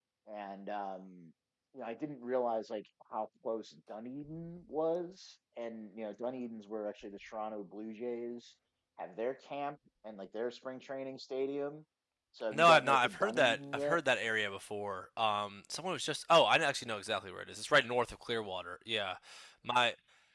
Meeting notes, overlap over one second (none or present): present